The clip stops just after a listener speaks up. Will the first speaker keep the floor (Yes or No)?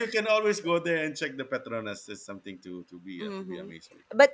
No